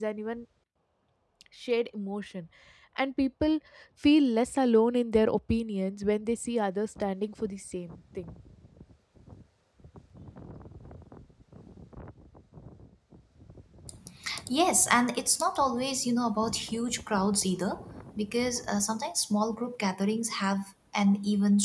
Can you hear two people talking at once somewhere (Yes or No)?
No